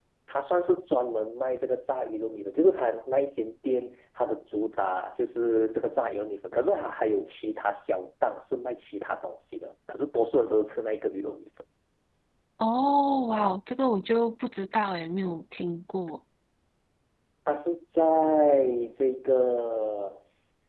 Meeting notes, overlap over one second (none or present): none